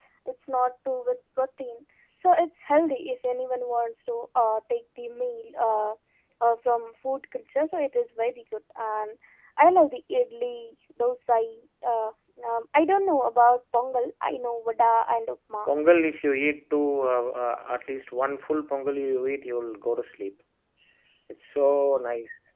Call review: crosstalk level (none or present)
none